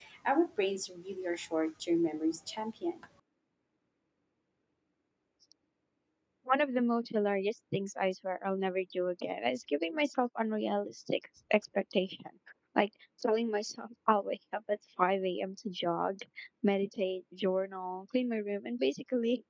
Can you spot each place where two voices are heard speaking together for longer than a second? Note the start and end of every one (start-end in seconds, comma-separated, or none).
none